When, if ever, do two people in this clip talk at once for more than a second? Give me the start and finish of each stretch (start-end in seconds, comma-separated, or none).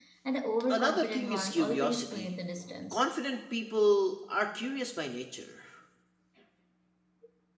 0.7-2.4